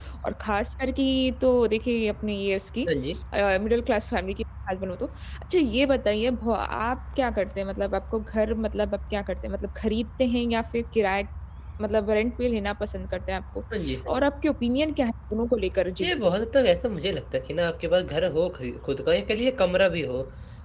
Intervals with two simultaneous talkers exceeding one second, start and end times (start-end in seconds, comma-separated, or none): none